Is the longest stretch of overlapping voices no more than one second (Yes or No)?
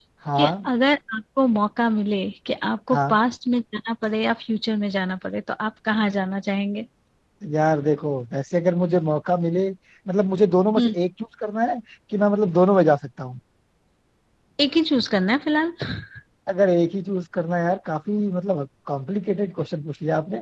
Yes